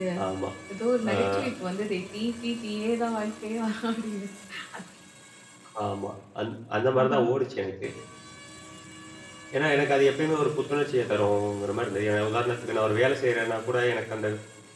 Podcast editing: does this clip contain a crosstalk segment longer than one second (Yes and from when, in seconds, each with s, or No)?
No